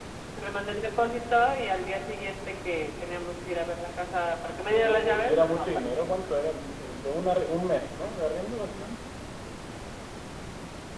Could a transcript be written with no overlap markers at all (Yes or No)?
No